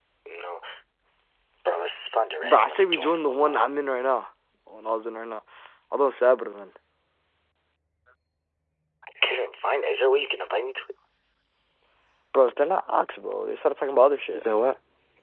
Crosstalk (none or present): present